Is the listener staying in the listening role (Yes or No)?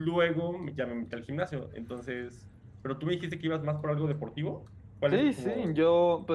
No